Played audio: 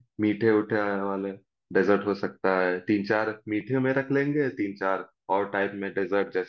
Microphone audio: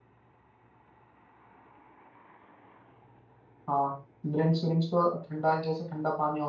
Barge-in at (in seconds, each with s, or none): 3.7 s